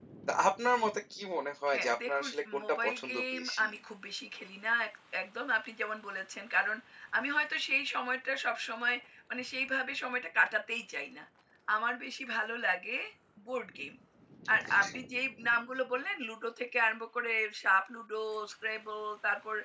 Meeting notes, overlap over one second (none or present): present